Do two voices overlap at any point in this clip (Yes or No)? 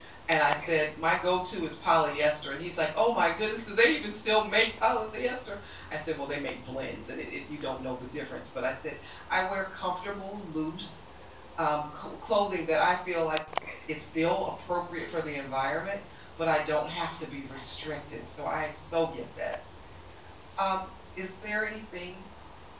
No